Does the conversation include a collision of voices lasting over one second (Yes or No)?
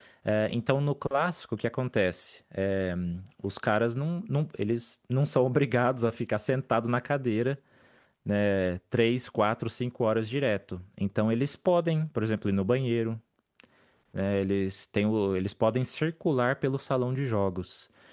No